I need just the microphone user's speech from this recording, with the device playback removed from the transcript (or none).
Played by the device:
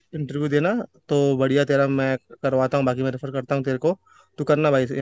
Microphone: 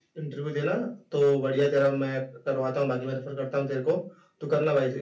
none